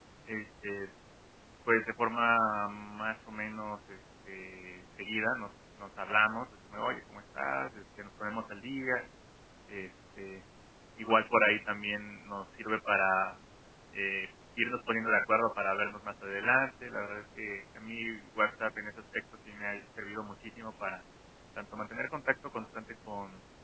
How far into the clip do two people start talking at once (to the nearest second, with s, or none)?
none